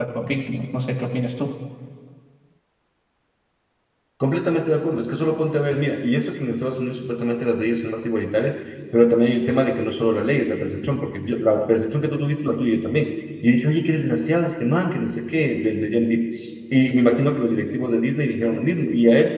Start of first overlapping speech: none

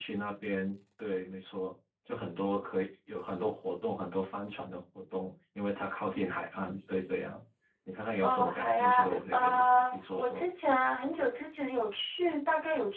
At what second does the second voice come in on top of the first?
8 s

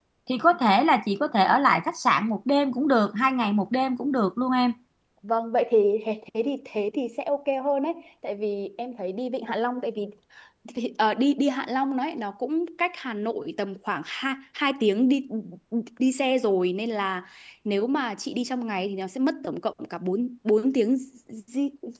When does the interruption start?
none

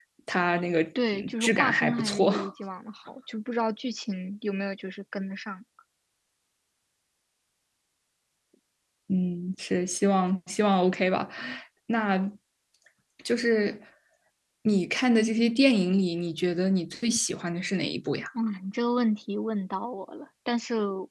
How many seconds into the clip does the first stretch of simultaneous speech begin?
1 s

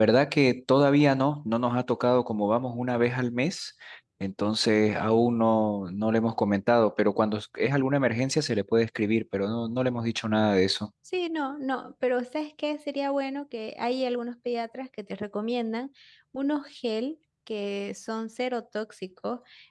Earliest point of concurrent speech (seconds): none

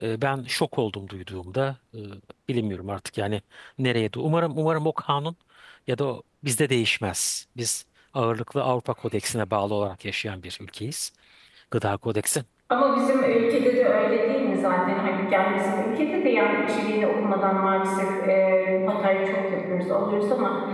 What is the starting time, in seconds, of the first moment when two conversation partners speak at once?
none

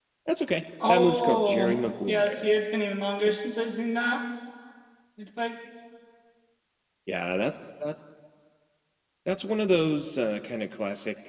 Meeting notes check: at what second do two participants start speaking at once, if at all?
1 s

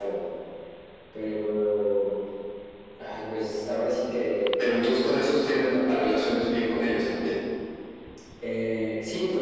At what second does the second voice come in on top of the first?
none

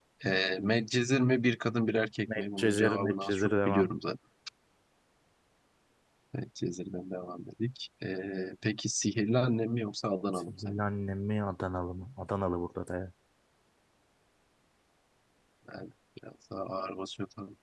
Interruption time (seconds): 2 s

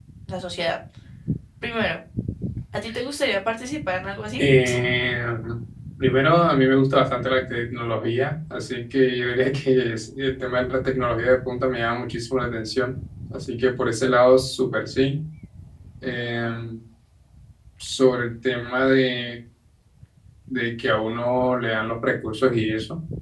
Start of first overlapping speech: none

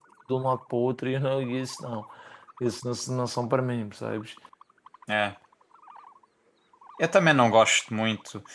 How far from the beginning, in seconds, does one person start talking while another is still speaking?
none

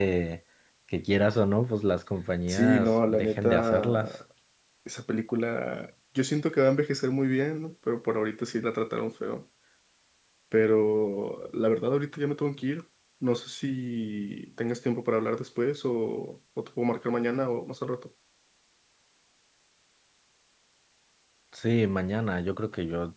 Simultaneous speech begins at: 2 s

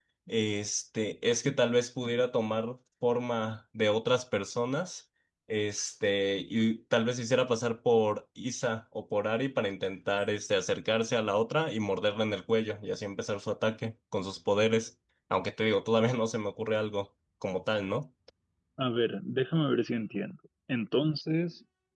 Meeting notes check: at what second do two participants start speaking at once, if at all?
none

